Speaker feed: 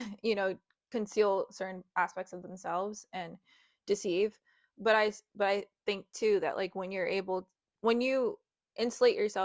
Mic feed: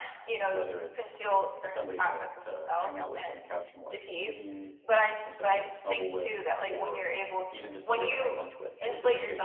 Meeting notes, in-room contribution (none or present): present